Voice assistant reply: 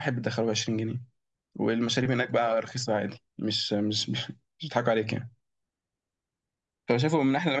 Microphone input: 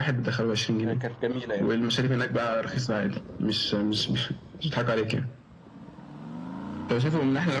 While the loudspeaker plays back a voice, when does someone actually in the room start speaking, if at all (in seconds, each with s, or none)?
0.8 s